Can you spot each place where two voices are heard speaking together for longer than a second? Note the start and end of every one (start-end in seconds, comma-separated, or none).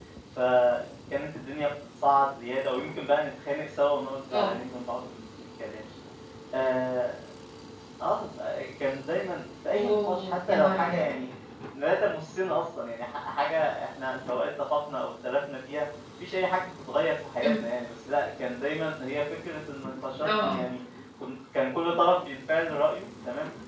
9.7-11.0